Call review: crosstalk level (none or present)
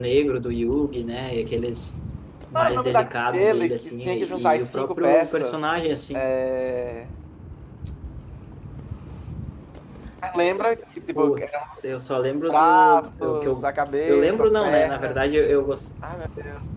present